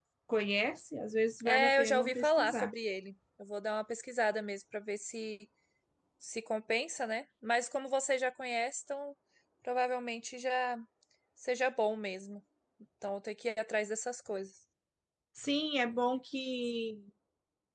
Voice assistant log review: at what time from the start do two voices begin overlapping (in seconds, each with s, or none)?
1.4 s